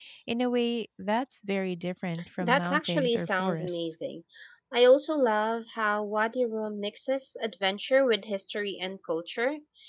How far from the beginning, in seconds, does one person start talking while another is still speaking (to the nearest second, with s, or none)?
2 s